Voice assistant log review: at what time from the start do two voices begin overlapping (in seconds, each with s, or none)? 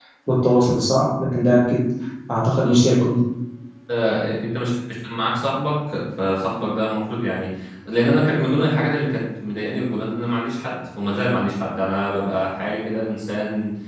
none